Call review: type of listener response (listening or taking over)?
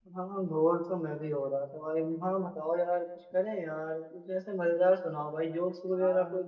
taking over